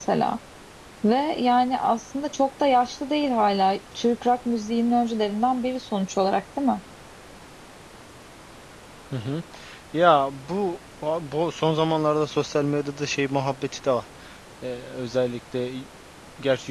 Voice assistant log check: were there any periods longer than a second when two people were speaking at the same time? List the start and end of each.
none

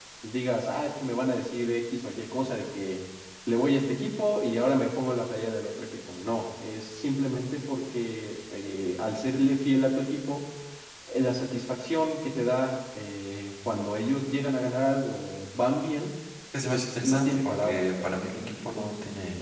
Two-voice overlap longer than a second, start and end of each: 16.7-18.2

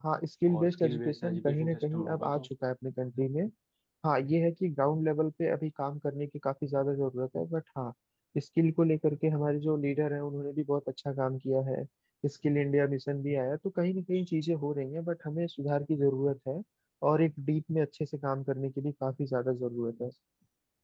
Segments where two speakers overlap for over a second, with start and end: 0.6-2.5

